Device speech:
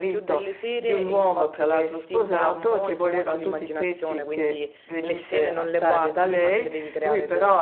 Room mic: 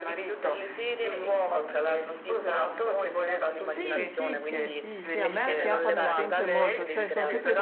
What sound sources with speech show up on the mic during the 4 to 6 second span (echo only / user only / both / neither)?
both